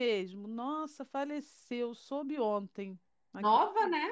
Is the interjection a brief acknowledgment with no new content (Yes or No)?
Yes